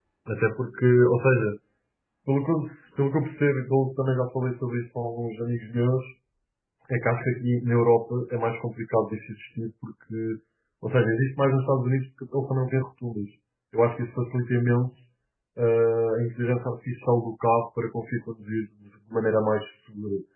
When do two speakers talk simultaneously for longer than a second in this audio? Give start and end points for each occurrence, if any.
none

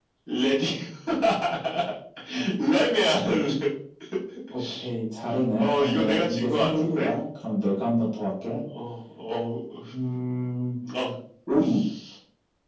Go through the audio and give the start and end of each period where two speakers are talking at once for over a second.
5.6-7.1

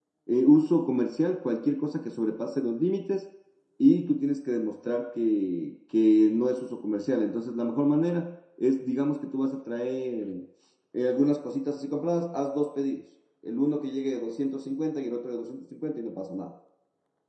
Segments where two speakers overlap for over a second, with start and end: none

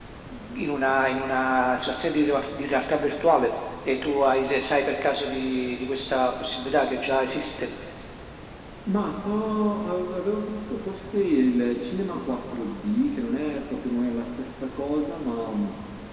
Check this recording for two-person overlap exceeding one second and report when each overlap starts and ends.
none

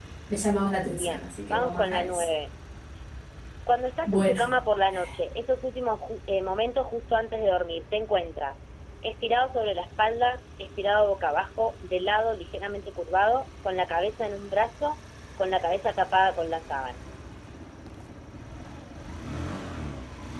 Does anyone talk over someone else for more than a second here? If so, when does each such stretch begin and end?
1.0-2.2

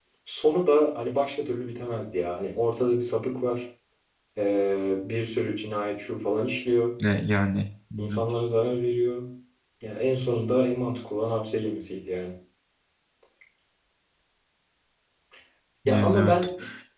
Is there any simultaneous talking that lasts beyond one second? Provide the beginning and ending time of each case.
none

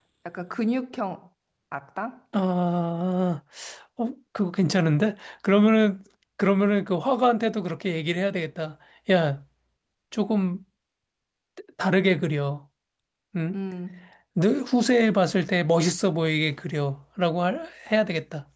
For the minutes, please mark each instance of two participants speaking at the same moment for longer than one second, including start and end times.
none

